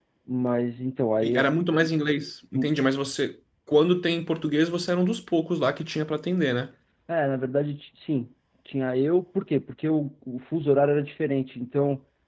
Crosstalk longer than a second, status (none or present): none